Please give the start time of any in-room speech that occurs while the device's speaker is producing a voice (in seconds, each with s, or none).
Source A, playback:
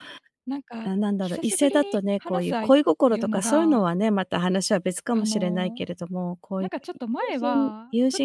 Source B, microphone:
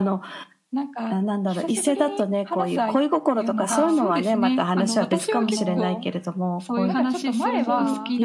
3.7 s